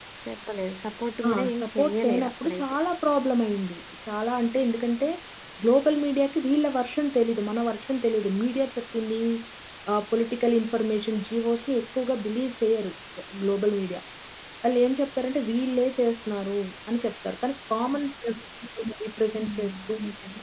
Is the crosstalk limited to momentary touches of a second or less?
No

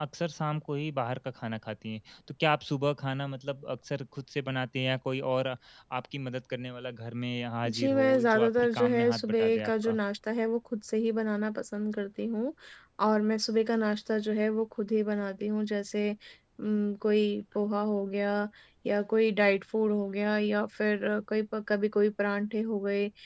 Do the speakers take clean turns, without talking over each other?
No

